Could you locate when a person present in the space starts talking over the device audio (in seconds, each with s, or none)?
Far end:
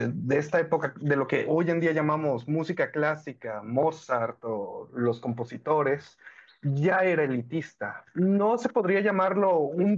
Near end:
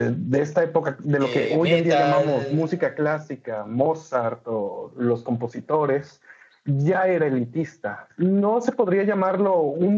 1.1 s